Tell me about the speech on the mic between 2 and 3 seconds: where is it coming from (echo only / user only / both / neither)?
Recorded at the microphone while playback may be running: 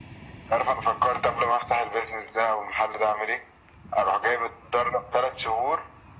echo only